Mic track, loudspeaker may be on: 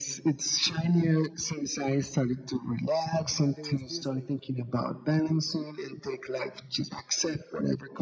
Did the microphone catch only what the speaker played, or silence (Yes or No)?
No